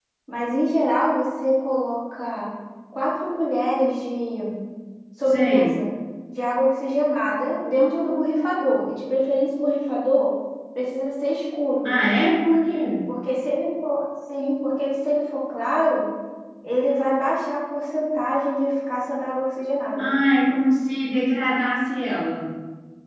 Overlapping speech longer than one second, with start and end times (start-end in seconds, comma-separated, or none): none